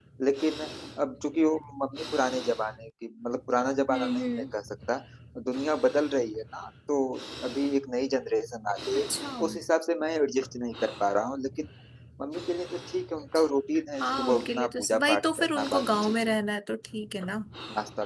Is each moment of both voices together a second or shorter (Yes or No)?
No